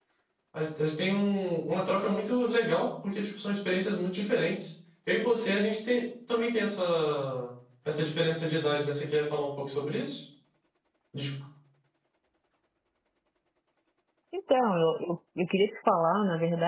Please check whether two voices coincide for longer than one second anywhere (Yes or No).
No